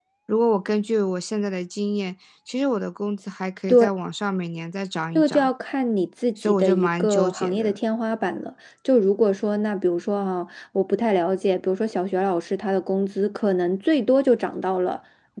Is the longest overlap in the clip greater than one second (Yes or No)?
Yes